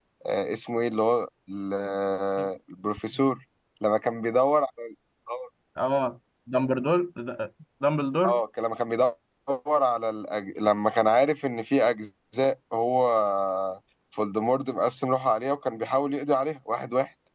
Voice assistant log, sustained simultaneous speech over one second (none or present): none